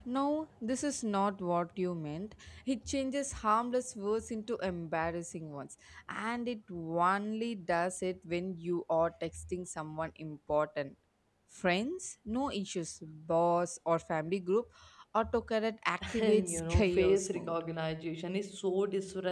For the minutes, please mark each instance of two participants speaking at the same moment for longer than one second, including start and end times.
16.2-17.6

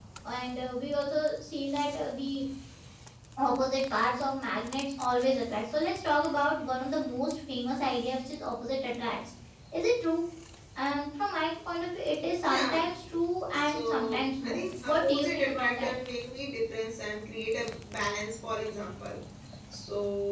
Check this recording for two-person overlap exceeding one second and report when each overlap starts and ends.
13.6-15.9

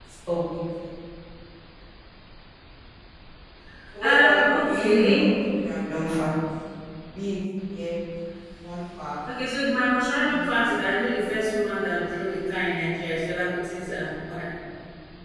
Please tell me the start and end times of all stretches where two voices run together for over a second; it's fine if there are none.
4.0-5.3

